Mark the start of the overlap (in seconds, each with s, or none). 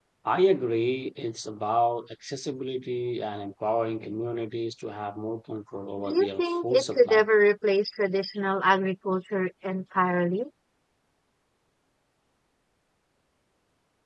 6.0 s